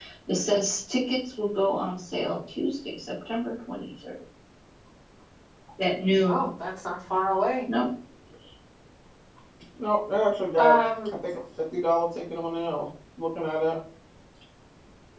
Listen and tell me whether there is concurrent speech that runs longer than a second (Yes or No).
No